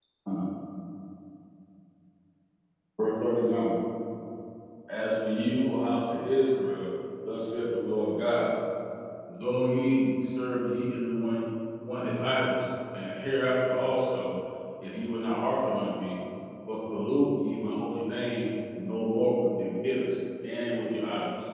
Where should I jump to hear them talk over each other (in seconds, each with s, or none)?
none